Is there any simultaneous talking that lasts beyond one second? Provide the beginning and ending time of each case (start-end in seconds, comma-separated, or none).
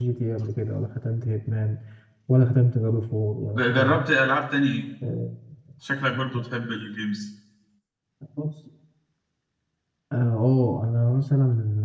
none